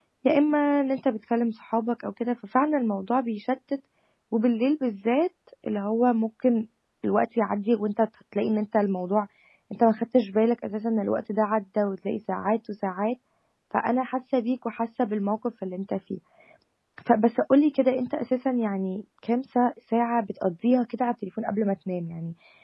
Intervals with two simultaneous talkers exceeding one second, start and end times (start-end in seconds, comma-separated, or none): none